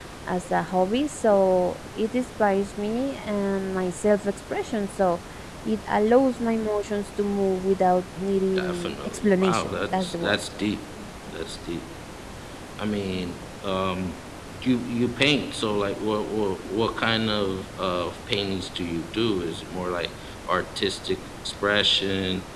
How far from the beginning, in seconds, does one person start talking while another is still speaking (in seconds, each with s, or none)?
8.6 s